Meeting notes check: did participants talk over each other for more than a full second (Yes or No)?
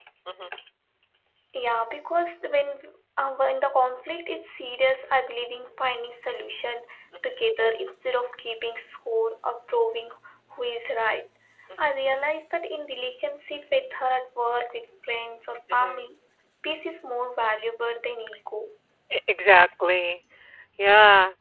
No